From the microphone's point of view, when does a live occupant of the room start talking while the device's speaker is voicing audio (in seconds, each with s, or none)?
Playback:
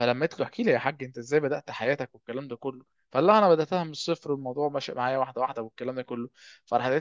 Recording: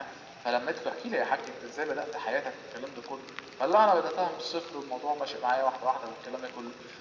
none